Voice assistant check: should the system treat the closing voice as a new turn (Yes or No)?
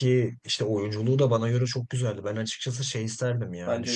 No